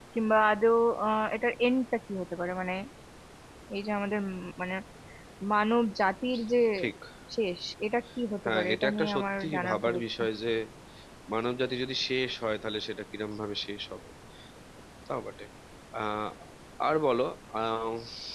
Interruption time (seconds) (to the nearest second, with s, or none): 8 s